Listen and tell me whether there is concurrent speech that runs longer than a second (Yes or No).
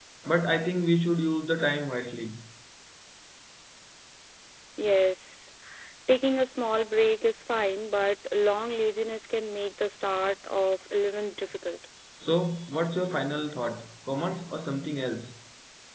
No